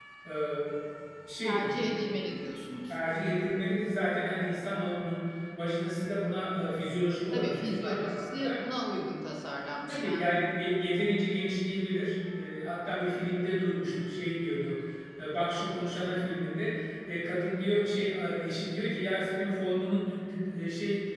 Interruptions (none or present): present